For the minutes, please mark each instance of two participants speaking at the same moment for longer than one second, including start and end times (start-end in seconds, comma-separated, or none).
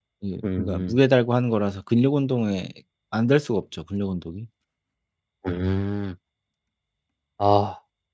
none